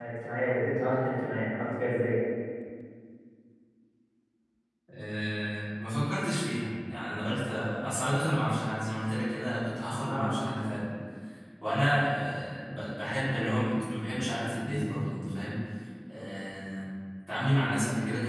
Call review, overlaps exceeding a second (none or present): none